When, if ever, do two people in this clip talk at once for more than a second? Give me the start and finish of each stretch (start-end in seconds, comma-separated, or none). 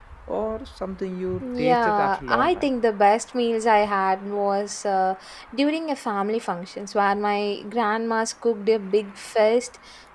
1.4-2.7